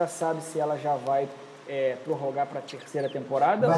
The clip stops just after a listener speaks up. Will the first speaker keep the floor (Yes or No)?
No